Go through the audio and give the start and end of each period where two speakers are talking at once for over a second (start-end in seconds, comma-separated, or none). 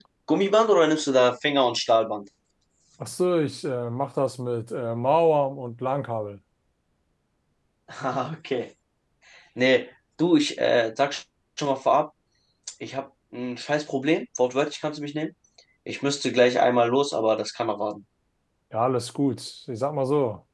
none